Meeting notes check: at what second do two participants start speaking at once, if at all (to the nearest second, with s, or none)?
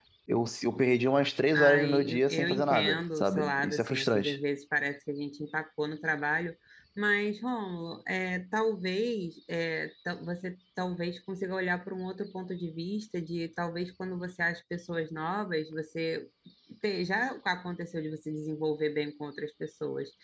2 s